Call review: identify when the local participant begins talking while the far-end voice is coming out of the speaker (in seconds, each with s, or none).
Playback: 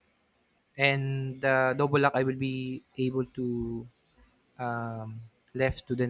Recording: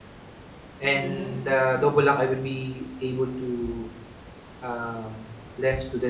0.8 s